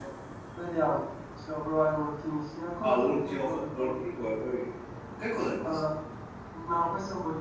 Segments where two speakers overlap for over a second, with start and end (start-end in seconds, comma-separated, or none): 2.8-4.0